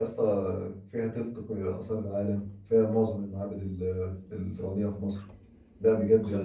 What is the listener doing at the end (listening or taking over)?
listening